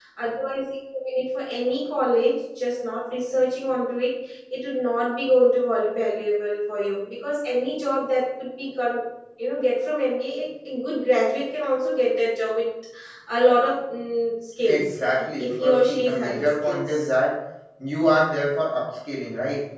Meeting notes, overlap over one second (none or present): present